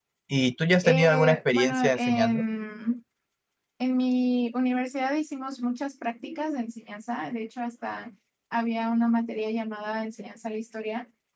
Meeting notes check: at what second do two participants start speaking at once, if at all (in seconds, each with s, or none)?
0.8 s